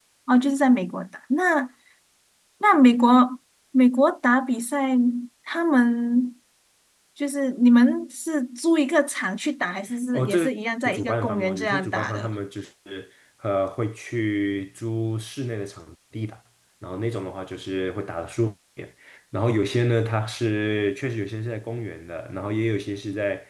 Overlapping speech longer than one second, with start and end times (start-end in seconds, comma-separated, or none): 10.9-12.3